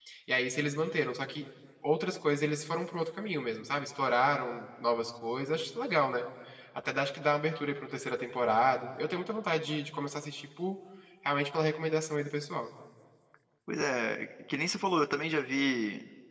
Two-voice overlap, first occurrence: none

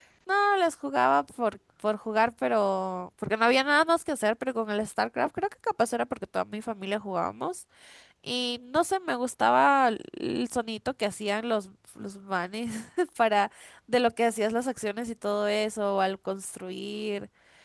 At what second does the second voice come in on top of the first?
none

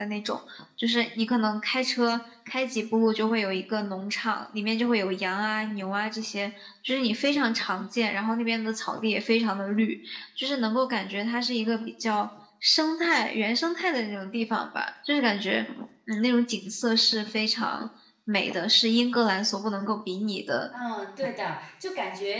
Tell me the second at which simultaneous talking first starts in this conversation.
none

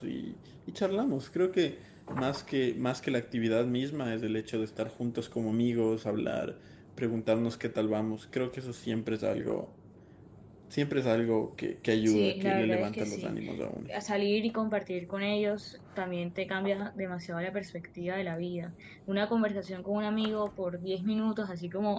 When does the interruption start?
12.1 s

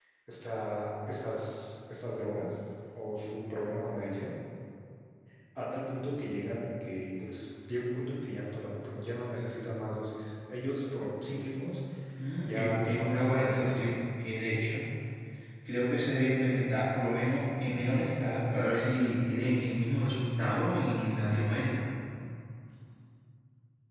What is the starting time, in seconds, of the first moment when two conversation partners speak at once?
12.4 s

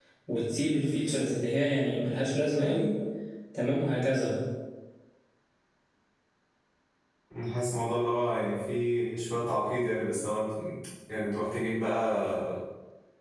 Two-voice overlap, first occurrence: none

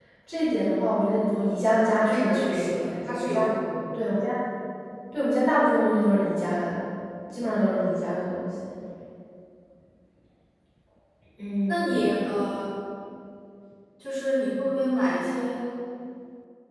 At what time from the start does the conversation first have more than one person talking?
2.1 s

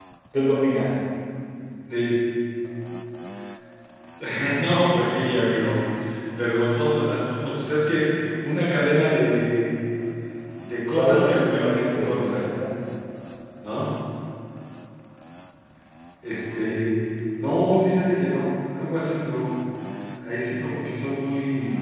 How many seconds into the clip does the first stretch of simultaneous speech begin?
10.9 s

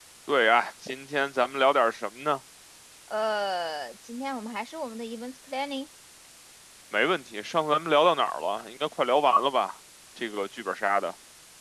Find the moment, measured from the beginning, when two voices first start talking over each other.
none

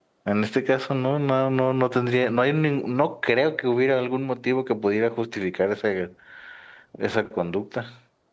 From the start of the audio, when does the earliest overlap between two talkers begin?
none

